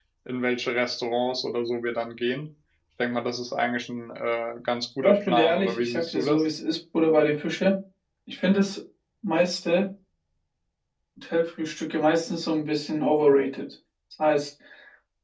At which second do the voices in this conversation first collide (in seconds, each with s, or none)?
5.0 s